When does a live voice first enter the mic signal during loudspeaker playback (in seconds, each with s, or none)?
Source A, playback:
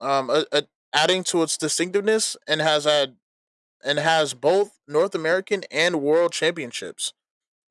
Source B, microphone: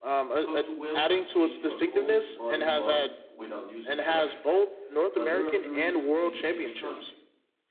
0.4 s